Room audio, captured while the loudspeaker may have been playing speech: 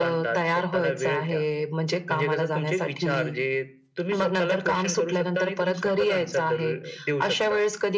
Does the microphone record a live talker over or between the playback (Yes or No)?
No